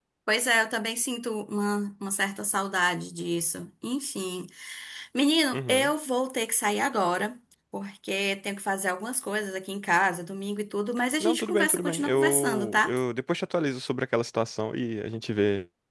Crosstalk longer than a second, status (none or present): present